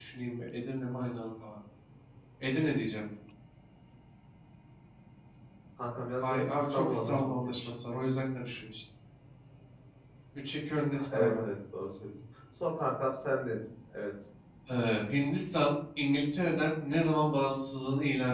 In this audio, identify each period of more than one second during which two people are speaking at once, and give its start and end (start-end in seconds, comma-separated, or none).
6.2-7.7